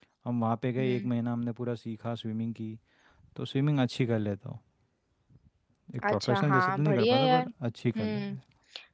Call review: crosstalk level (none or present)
present